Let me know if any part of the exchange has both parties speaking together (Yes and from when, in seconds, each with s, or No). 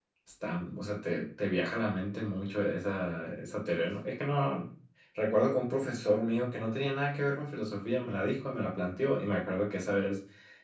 No